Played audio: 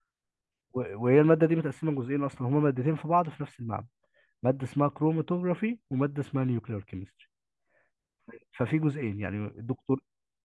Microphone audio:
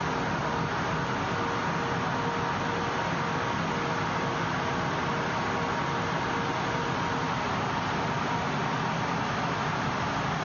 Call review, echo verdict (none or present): none